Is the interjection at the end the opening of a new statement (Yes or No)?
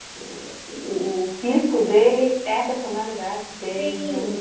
Yes